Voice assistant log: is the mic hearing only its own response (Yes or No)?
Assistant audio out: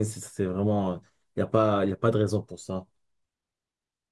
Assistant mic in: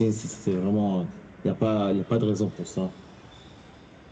Yes